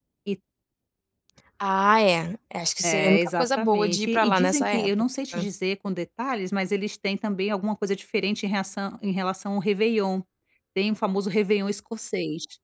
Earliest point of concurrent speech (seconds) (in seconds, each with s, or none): 2.8 s